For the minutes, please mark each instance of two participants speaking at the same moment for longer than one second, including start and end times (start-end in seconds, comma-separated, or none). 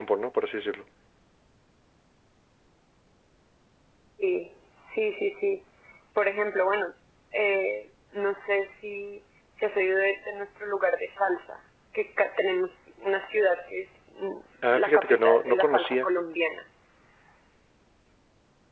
14.7-16.1